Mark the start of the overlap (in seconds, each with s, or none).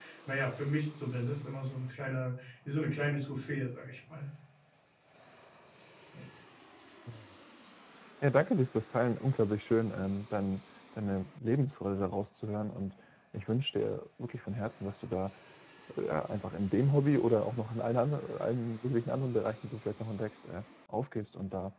none